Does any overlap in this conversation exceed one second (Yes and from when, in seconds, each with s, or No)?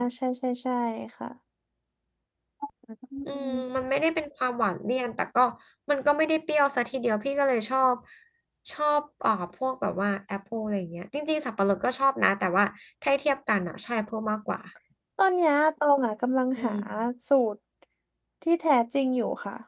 No